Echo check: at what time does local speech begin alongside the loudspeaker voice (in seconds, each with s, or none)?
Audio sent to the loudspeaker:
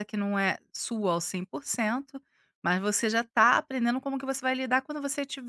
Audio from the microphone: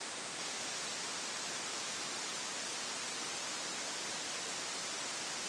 none